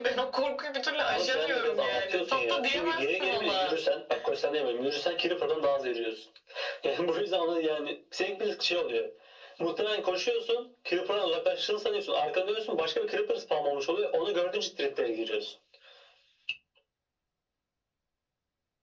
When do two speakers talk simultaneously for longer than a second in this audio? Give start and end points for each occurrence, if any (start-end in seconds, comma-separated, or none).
1.1-3.8